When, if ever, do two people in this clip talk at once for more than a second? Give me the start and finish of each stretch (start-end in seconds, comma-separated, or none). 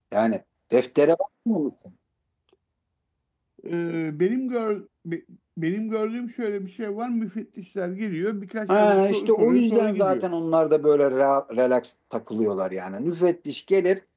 8.7-10.2